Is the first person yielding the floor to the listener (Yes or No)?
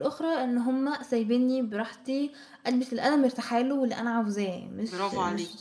Yes